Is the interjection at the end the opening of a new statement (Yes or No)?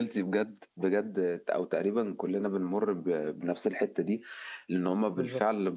No